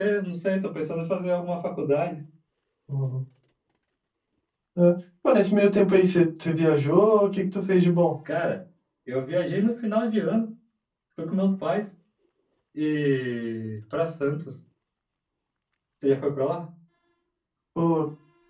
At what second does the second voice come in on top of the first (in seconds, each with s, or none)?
none